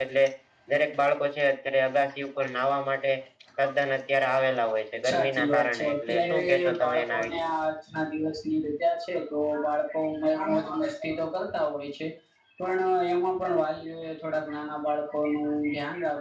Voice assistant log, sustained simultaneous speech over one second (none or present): present